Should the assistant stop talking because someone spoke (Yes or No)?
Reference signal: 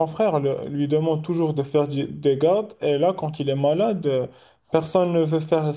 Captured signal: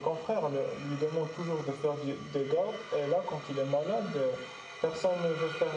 No